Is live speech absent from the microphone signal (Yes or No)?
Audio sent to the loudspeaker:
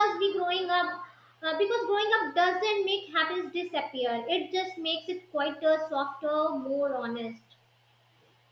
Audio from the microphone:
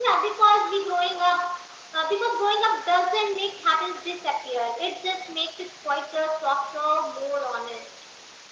Yes